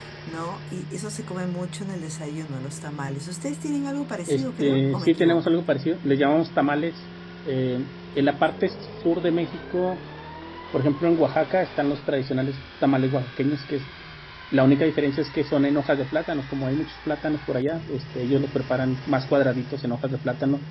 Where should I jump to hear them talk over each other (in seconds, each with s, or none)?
4.3 s